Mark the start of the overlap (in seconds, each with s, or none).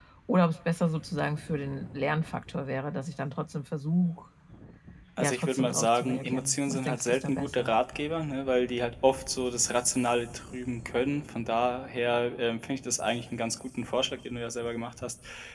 5.2 s